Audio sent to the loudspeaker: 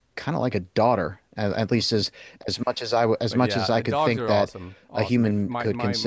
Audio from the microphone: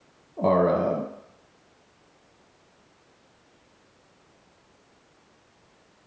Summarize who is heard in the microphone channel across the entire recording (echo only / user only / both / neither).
user only